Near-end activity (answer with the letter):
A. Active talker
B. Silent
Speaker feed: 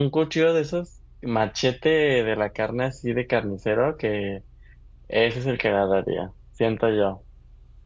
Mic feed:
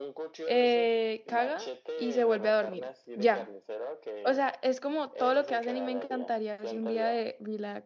A